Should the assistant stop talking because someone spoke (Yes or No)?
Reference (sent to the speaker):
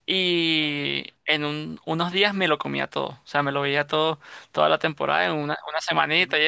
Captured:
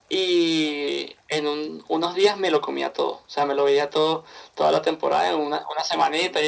No